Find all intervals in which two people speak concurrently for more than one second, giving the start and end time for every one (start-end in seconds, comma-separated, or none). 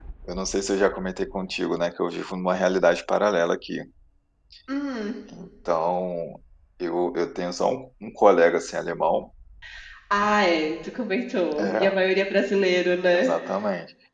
none